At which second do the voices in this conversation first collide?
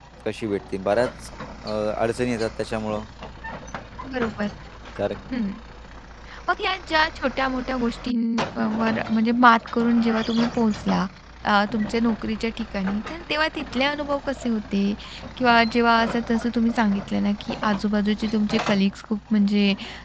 none

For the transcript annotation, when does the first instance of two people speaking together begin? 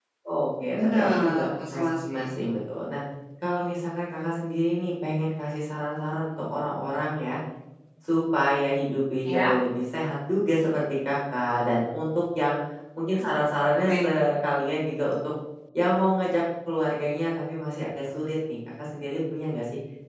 1 s

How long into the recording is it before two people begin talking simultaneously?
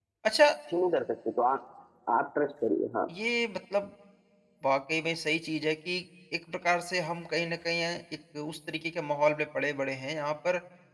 none

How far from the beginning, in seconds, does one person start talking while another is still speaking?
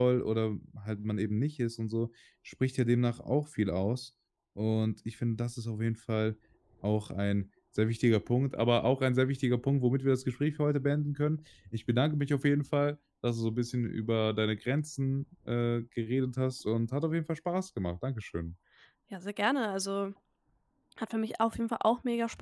none

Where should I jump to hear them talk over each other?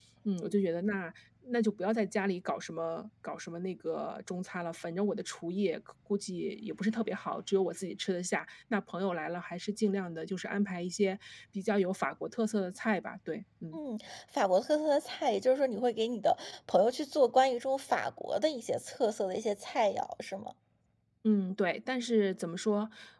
none

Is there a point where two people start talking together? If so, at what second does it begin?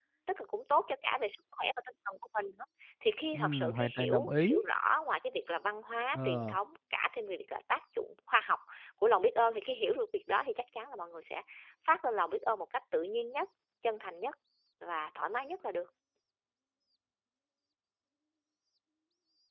3 s

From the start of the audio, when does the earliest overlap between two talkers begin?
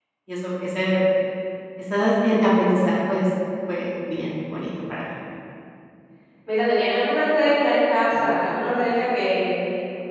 none

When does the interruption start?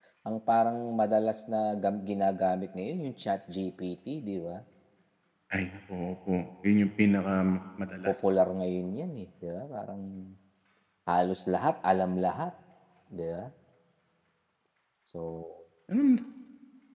none

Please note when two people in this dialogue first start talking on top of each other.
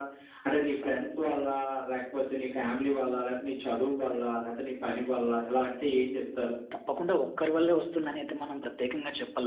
none

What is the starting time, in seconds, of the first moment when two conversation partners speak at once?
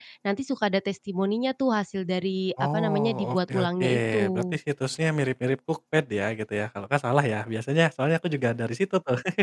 3 s

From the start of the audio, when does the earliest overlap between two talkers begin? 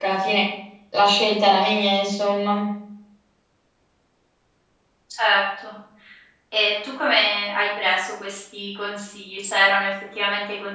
none

